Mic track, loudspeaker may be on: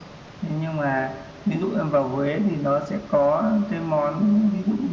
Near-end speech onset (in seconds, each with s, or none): none